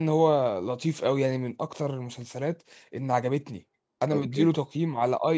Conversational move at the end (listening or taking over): listening